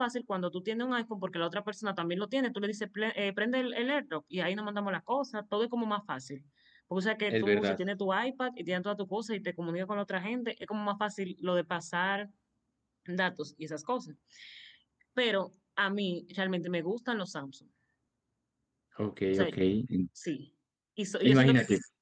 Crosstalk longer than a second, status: none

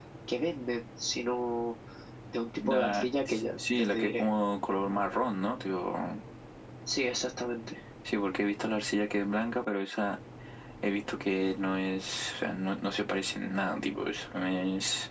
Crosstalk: present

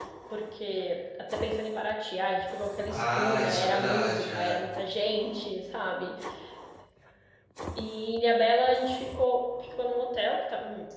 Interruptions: present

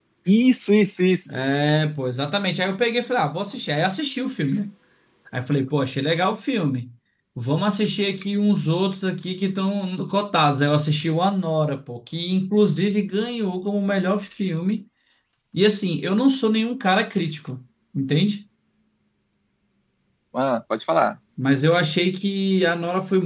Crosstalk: none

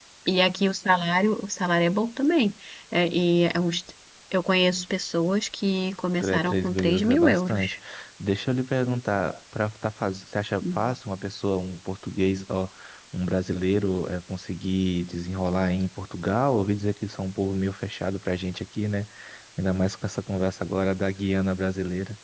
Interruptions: present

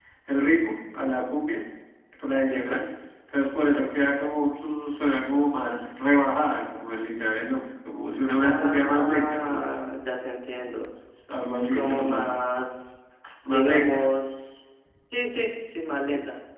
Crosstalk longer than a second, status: present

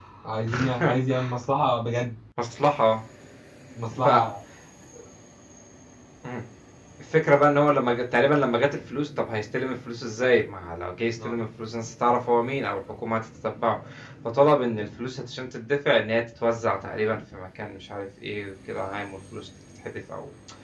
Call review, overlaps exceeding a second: none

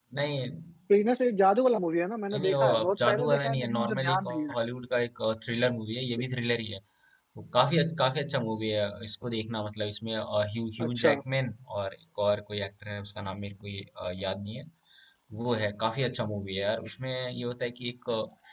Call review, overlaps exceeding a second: present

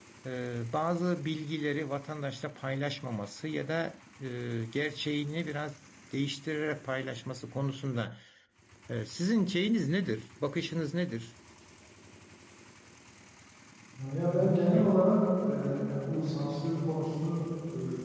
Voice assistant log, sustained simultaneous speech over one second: none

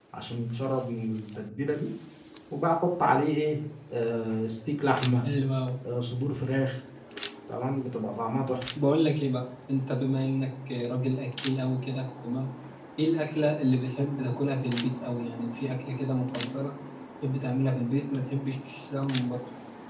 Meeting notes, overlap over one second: none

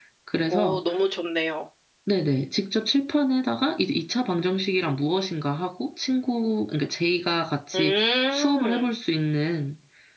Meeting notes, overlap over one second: present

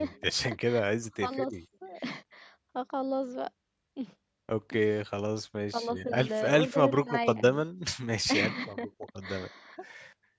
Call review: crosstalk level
present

